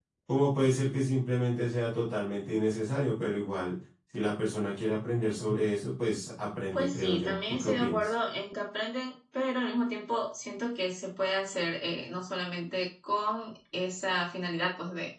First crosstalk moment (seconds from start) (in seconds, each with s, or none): 6.7 s